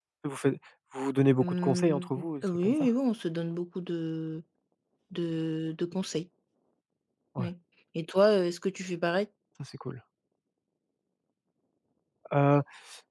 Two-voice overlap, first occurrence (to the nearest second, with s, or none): 1 s